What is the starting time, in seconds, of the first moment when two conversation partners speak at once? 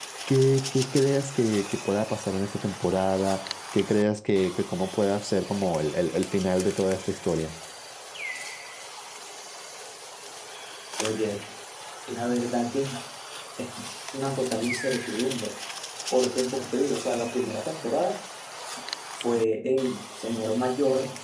none

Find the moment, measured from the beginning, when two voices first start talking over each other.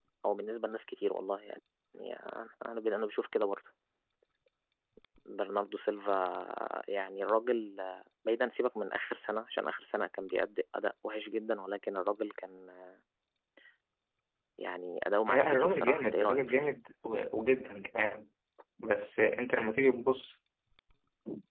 15.3 s

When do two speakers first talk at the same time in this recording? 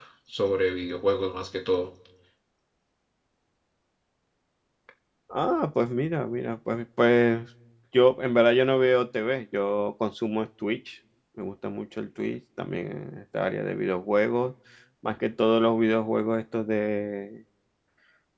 none

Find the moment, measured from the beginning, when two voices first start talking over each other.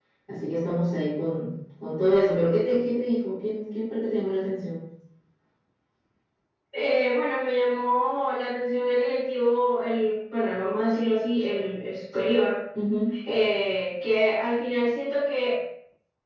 none

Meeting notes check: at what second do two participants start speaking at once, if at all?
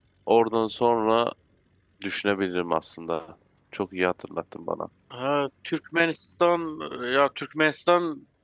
none

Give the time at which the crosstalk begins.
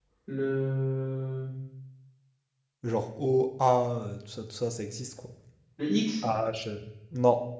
none

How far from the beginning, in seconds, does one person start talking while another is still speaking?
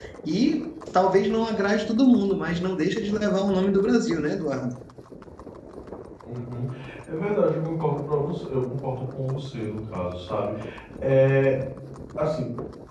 none

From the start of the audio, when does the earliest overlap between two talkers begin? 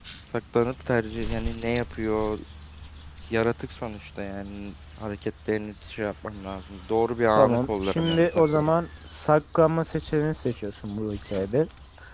7.4 s

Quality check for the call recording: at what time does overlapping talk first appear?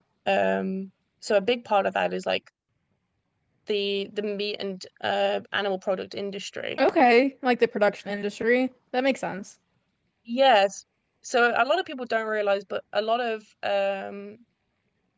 none

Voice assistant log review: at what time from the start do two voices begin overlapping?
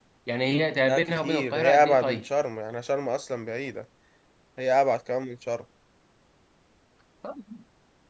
0.9 s

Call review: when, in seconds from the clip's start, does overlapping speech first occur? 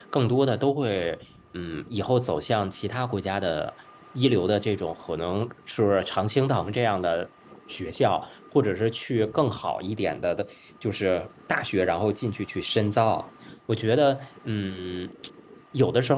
none

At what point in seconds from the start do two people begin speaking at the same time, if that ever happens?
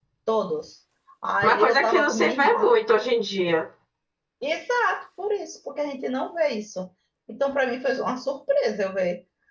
1.4 s

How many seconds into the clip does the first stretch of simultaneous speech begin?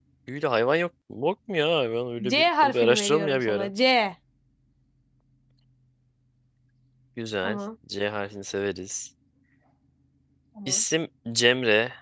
2.3 s

